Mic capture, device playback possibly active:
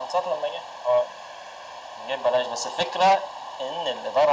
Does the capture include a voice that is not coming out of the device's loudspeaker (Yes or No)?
No